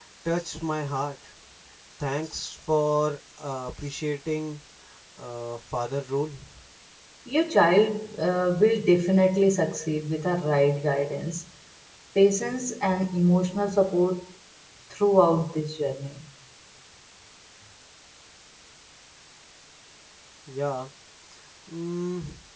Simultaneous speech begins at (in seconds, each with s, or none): none